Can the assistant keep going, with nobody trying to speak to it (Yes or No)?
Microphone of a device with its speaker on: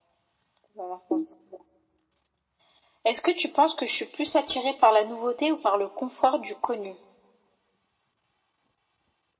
Yes